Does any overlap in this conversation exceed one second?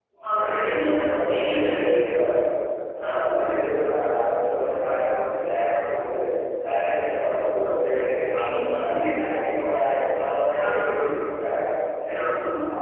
Yes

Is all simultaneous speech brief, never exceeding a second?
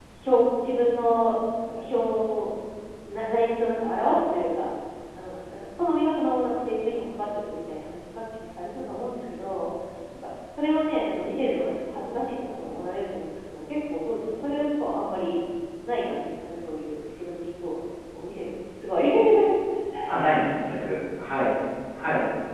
Yes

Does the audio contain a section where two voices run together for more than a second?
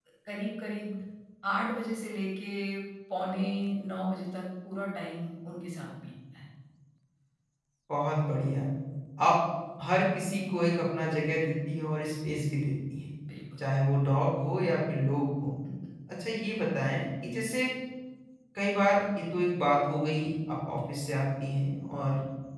No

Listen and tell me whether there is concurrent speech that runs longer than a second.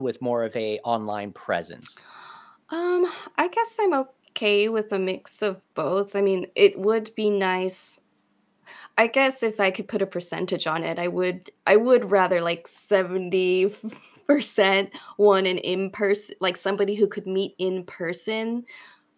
No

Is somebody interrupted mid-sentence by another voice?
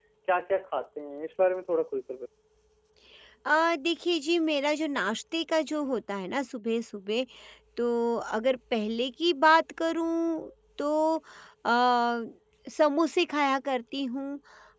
No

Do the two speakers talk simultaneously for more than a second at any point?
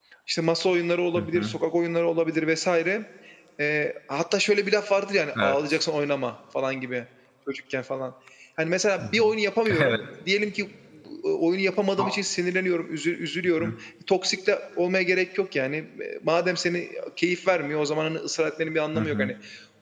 No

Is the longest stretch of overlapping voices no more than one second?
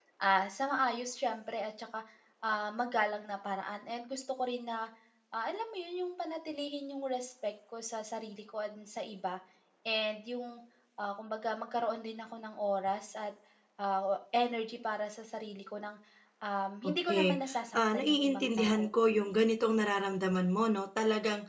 No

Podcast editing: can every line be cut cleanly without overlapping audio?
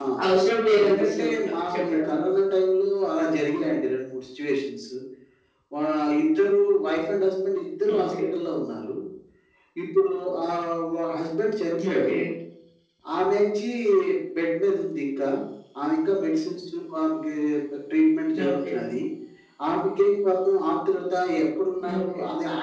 No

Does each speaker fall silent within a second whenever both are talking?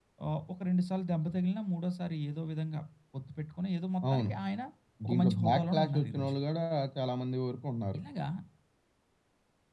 No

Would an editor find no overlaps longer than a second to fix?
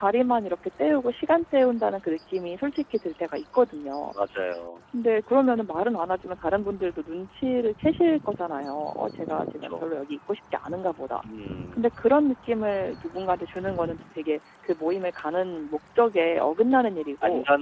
Yes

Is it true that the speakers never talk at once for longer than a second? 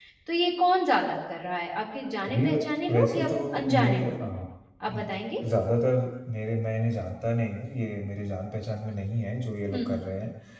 No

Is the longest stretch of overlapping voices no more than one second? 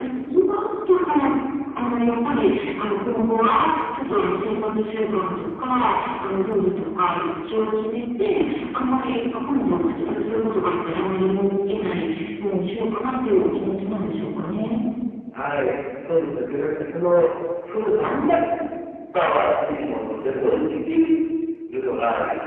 Yes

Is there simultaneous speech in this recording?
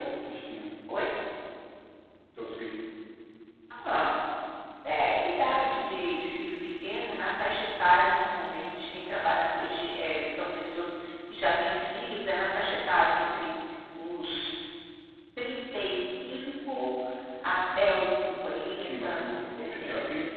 Yes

